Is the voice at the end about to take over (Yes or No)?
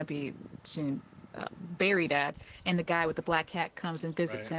No